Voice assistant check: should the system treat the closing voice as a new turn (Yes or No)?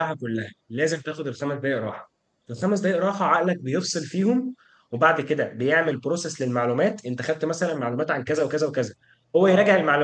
No